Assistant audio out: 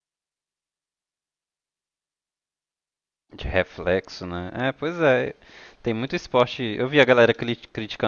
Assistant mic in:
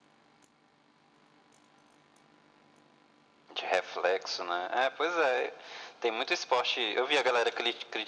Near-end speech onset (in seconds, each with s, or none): none